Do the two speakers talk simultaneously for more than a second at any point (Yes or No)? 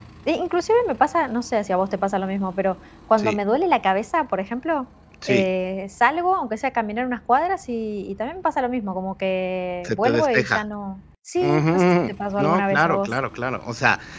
Yes